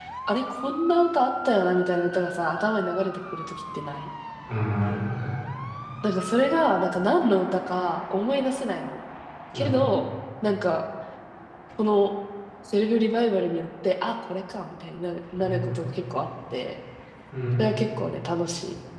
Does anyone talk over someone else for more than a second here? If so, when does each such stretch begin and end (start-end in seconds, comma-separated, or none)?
none